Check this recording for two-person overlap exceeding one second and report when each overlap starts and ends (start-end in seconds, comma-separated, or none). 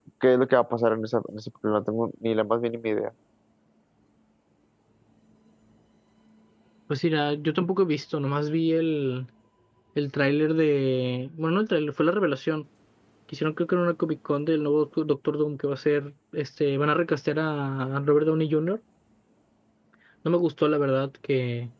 none